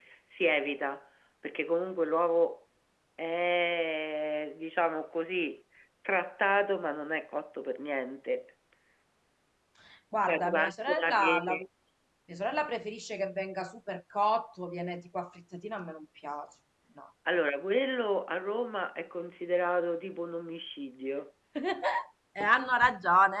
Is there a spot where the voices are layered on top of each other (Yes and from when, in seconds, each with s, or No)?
Yes, from 10.2 s